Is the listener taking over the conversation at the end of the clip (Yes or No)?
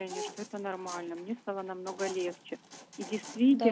No